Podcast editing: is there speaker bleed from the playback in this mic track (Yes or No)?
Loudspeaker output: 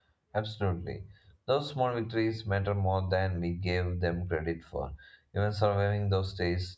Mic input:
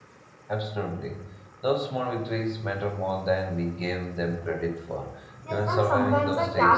Yes